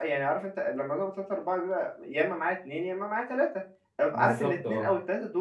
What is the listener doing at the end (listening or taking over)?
listening